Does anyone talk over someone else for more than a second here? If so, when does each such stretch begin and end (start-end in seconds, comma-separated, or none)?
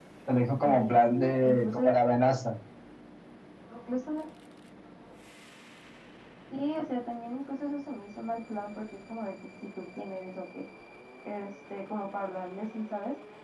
0.6-1.8